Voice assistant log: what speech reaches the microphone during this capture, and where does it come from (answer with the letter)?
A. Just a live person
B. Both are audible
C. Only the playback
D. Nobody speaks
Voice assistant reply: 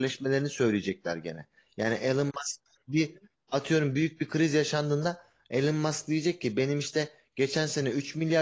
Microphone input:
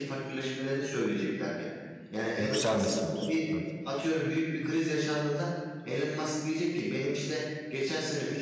B